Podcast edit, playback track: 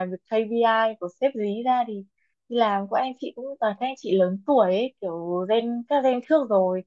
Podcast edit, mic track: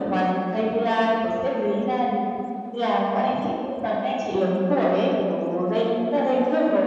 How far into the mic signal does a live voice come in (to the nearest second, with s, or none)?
none